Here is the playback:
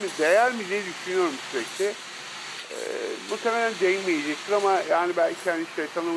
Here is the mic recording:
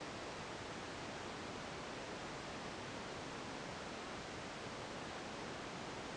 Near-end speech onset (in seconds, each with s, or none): none